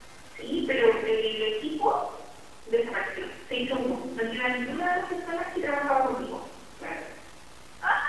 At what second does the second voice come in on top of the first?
3.7 s

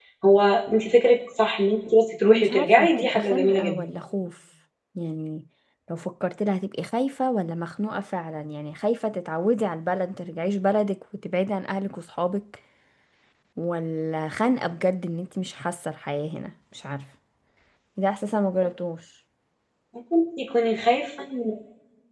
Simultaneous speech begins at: 2.2 s

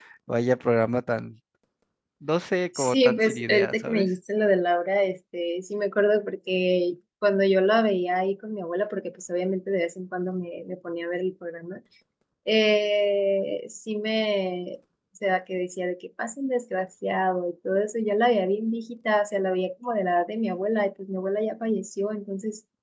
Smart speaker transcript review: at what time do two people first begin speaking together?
2.8 s

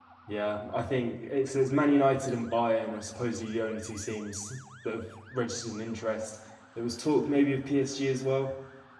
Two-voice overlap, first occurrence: none

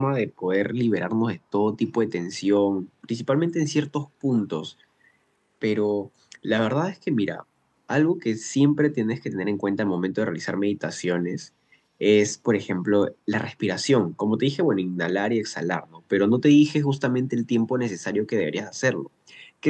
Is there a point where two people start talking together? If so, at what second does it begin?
none

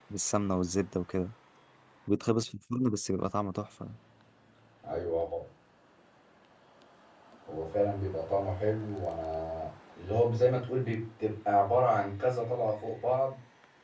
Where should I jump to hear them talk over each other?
none

